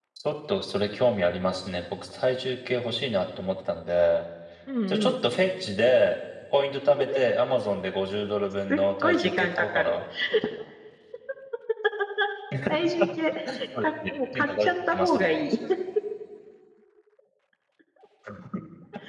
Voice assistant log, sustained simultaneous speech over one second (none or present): present